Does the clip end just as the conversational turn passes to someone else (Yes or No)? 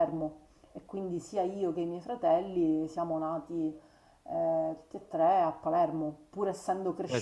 Yes